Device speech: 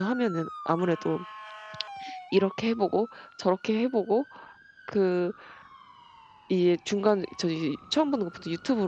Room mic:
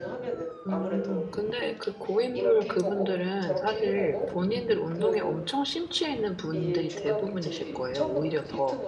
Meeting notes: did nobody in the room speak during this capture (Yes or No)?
No